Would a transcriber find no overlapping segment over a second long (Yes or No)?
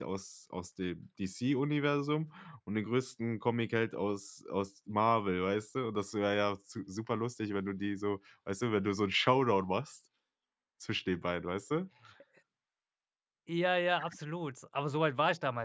Yes